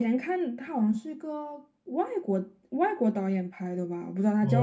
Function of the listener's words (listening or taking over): taking over